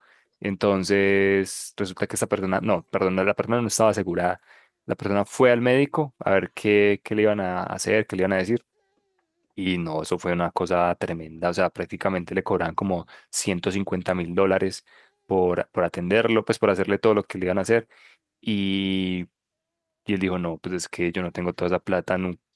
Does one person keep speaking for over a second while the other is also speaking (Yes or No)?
No